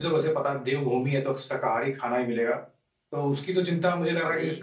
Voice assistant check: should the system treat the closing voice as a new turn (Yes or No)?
No